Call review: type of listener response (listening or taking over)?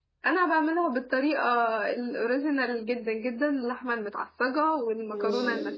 listening